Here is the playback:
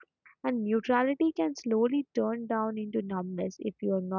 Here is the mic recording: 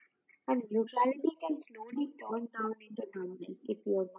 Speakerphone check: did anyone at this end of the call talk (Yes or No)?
No